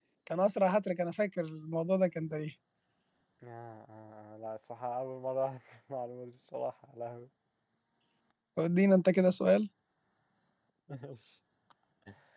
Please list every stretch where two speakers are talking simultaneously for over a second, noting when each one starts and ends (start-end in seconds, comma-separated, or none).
none